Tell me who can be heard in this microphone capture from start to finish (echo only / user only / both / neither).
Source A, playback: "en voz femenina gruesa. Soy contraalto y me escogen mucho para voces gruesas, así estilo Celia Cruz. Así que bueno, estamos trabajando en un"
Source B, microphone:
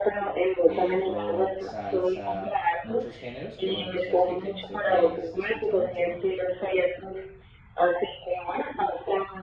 both